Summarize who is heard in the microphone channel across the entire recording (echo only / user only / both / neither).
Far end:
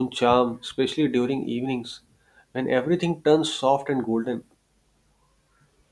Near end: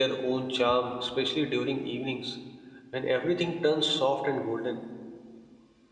echo only